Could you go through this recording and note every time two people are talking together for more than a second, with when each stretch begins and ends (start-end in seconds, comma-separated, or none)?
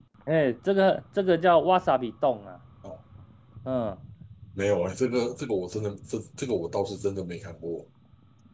none